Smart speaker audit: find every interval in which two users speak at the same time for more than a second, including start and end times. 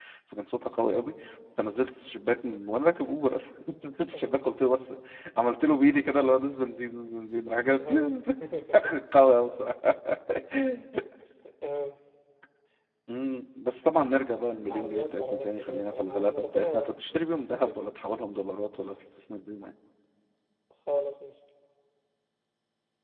14.7-16.9

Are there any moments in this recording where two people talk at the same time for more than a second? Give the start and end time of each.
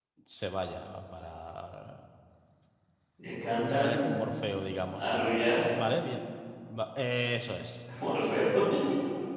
none

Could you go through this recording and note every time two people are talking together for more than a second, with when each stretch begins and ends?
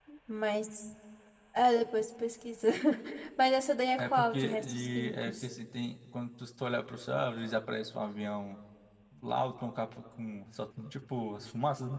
4.0-5.5

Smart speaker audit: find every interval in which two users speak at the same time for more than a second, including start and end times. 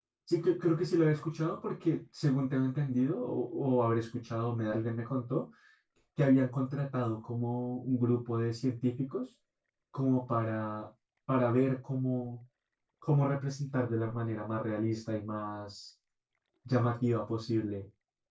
none

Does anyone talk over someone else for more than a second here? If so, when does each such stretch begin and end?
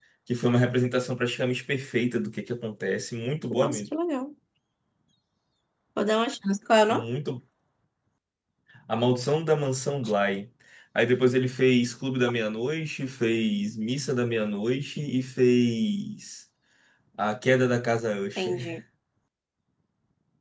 none

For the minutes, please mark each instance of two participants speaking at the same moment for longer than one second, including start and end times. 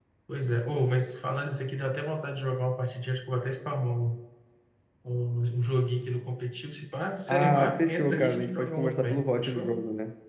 7.3-9.7

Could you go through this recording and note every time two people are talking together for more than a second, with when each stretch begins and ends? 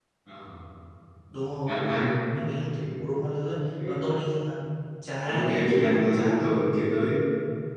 5.2-6.5

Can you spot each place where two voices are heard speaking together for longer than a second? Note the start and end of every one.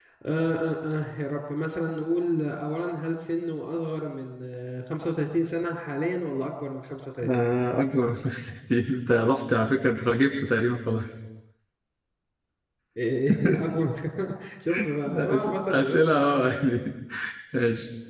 15.1-16.3

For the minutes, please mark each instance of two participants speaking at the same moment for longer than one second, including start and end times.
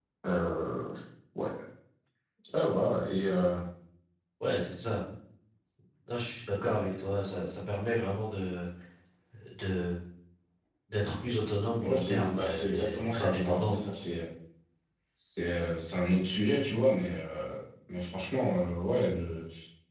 11.8-13.8

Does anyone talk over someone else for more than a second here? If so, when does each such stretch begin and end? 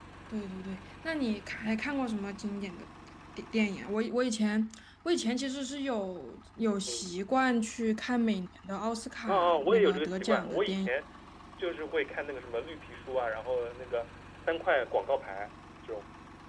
9.3-10.9

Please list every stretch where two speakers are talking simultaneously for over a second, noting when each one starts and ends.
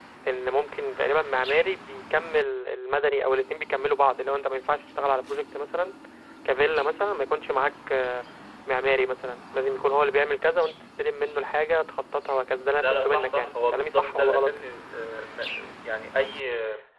12.7-14.5

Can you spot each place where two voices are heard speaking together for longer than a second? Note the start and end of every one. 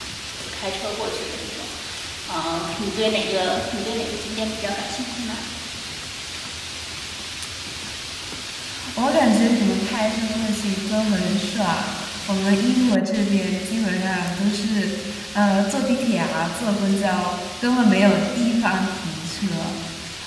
none

